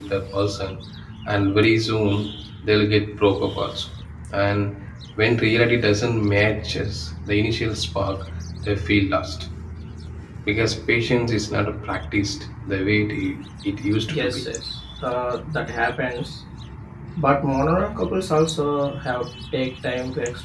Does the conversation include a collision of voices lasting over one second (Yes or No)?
No